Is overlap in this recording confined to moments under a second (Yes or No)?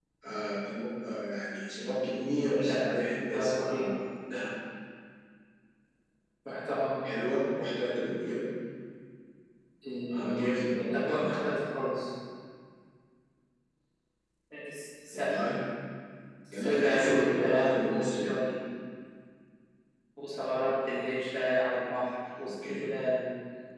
No